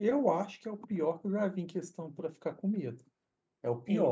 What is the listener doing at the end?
listening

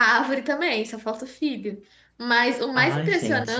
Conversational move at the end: listening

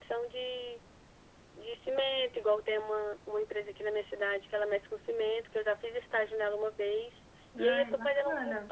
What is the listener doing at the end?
listening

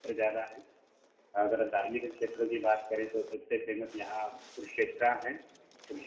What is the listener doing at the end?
listening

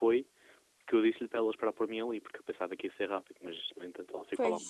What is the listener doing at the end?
listening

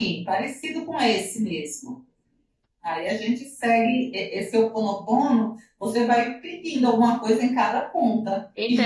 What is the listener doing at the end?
taking over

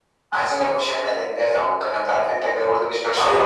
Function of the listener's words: taking over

